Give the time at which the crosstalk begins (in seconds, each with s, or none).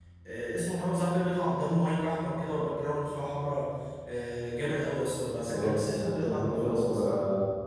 5.5 s